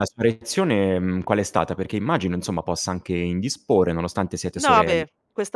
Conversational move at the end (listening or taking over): taking over